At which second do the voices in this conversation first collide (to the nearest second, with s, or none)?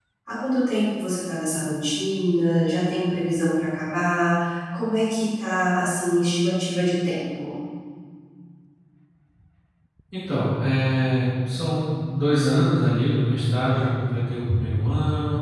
none